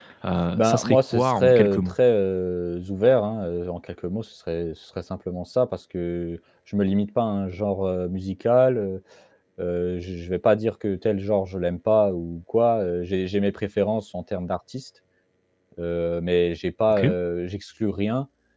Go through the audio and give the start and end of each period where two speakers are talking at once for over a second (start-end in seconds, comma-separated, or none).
0.5-1.9